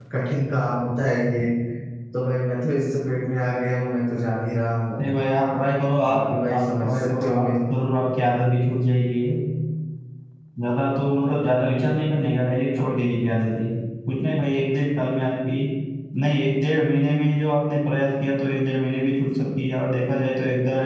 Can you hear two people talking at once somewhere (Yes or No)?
Yes